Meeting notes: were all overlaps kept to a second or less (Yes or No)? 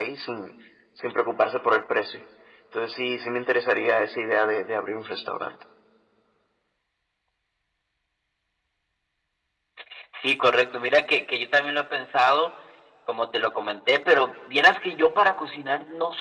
Yes